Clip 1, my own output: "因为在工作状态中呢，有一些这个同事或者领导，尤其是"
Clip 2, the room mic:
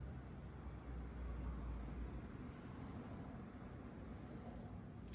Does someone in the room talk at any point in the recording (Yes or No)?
No